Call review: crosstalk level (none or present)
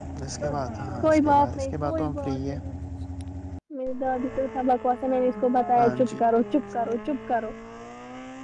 present